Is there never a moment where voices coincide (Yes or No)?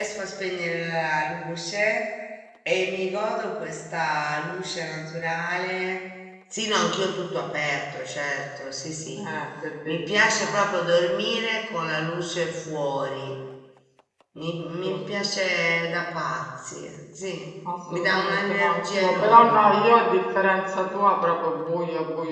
No